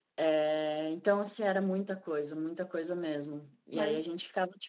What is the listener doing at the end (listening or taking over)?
listening